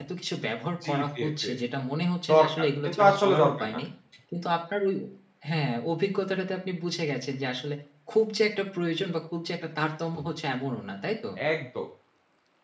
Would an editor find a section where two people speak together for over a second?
Yes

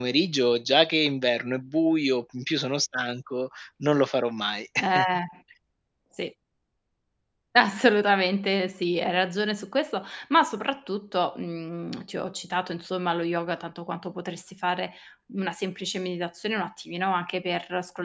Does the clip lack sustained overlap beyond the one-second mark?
Yes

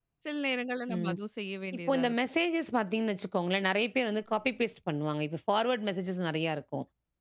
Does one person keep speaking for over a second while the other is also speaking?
No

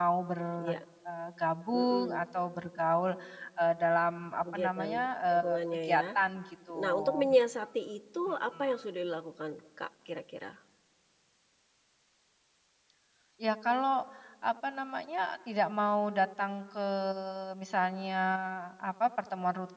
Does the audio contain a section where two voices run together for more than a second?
Yes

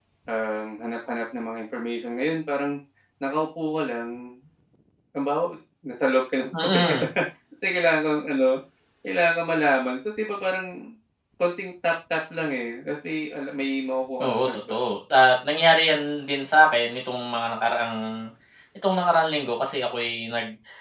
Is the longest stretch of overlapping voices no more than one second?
Yes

